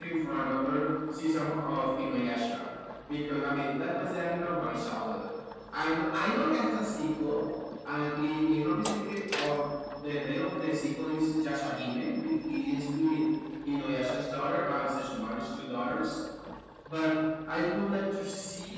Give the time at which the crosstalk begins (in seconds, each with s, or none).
none